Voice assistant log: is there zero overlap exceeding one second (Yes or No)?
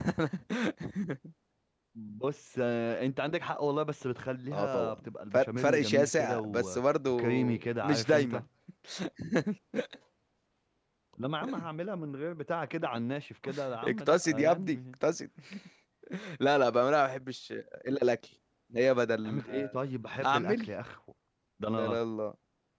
No